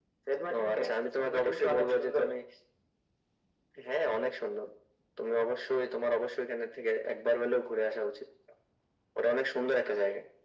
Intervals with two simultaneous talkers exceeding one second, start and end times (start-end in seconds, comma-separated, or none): 0.6-2.3